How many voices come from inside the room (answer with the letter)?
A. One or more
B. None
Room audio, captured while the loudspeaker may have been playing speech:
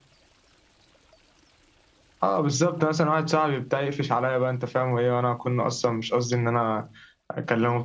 B